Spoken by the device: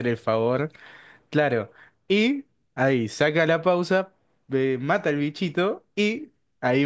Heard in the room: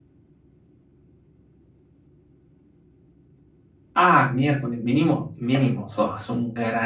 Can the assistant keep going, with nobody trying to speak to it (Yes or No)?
No